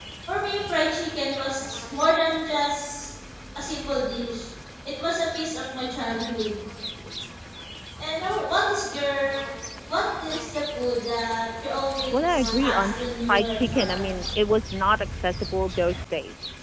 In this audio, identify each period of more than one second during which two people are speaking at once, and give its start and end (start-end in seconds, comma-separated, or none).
12.1-14.1